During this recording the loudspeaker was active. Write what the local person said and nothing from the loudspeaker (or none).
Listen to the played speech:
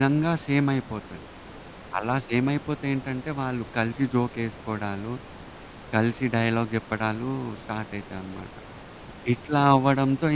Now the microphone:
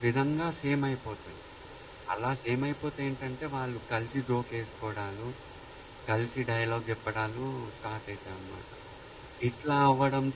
none